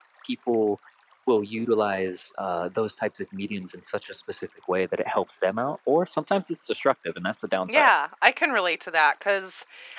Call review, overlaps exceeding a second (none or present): none